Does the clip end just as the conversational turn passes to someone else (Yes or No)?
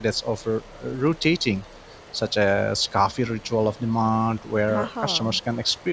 No